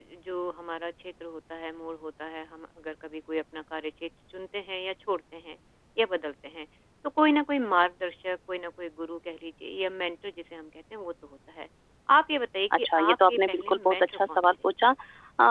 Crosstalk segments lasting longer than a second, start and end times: 12.8-14.4

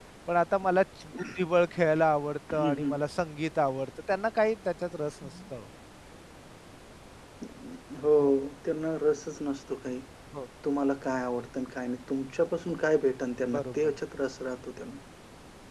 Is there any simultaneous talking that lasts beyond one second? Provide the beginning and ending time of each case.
none

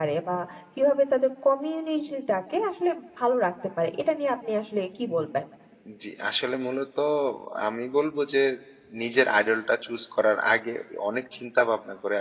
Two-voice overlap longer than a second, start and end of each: none

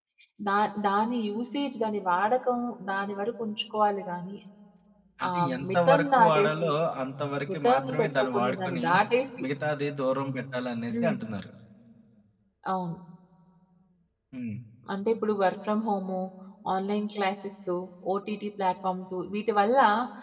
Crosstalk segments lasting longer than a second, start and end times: 5.3-6.7, 7.5-8.8

